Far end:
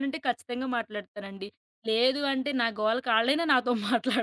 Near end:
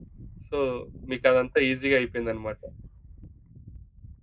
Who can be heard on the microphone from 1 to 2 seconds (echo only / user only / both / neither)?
user only